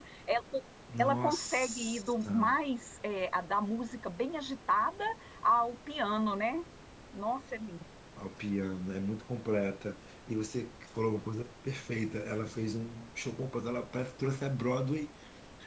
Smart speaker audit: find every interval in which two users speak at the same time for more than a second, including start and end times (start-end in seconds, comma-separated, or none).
1.0-2.5